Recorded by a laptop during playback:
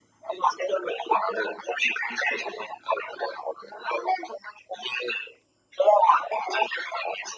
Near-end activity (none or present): none